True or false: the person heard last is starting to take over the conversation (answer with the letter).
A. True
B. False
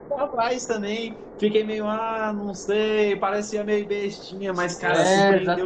A